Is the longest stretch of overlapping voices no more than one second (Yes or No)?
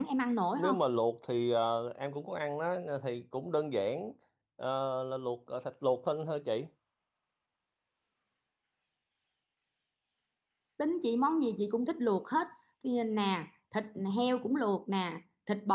Yes